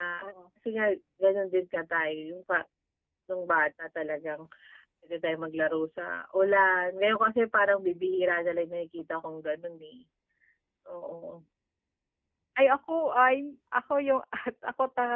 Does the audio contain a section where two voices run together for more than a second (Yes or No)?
No